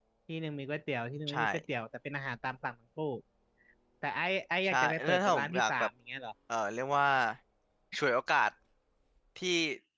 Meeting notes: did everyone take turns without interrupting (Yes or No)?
No